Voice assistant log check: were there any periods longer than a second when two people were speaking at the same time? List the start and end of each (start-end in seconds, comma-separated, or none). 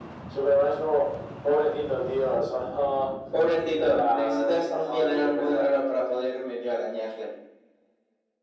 3.8-5.7